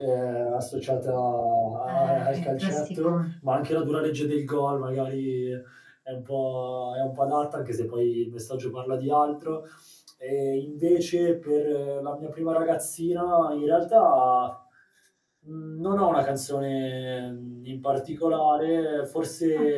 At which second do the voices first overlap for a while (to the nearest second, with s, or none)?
2 s